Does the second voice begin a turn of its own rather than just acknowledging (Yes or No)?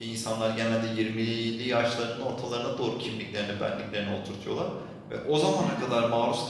No